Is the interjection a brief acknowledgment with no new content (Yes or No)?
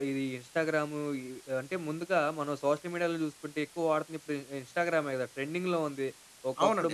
Yes